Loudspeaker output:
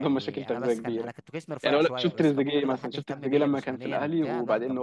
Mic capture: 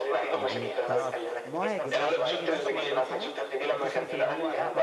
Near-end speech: present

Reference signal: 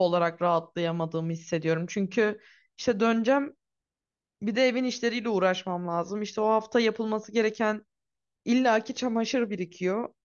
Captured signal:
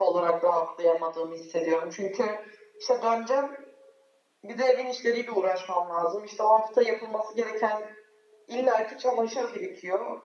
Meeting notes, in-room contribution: none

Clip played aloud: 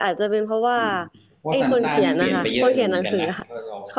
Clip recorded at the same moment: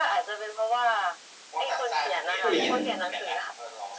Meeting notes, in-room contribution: present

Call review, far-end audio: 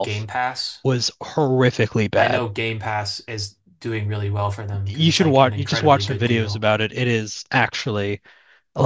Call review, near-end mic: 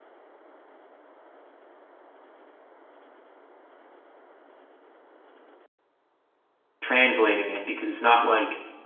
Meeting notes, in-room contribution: present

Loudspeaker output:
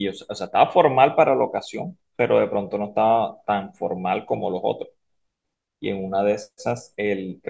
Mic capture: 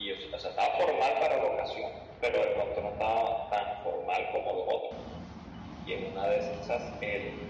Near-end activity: none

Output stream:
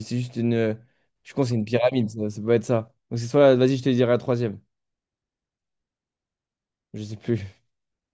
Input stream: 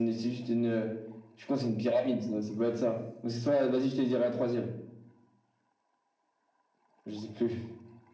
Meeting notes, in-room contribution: none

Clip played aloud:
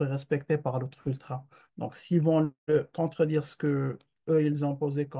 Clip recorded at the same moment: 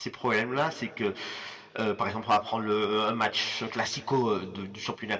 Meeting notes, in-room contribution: present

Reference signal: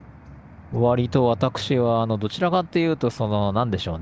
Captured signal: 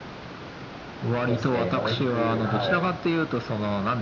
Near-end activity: present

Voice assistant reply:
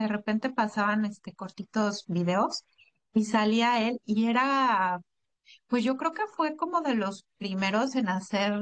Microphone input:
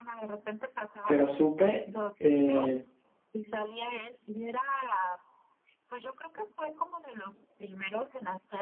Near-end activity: present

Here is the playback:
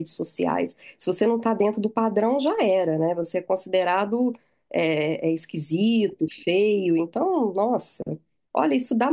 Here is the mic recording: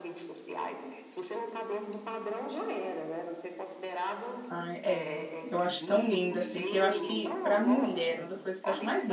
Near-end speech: present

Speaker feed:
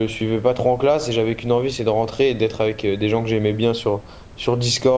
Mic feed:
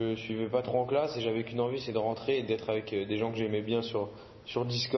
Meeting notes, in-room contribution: none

